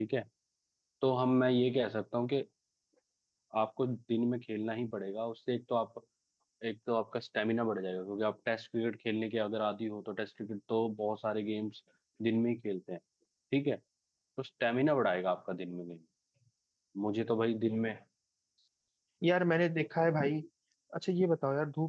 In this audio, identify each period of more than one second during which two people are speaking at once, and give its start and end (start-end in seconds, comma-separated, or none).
none